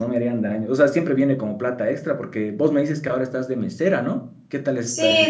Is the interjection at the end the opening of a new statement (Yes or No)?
Yes